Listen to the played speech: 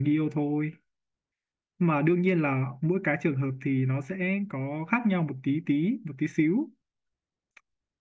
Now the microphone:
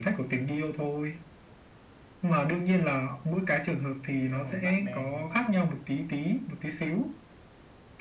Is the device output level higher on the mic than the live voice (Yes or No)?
Yes